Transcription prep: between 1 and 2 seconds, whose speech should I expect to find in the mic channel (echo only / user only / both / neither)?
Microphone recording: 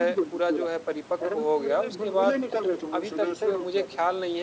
both